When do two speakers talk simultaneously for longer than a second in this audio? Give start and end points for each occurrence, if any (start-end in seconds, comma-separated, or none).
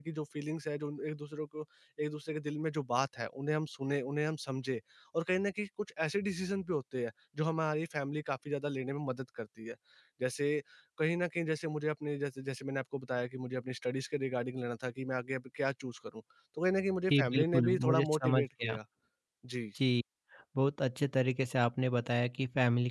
17.1-18.8